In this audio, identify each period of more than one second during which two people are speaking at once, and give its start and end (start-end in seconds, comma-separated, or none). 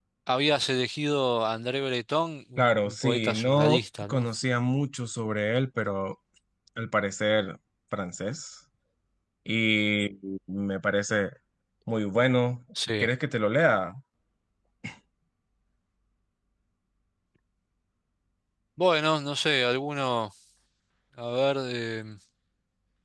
2.6-4.2